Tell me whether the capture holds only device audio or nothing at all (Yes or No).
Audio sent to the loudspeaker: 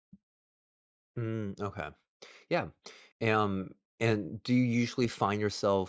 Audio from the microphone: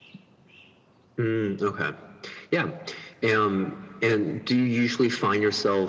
Yes